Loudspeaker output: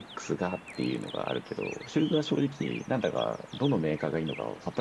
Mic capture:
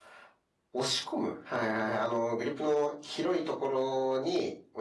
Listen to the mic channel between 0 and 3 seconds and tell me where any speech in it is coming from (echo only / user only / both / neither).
user only